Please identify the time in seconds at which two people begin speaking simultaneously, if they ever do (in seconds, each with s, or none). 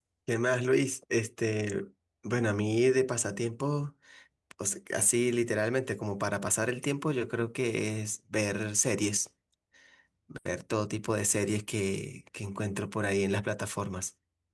none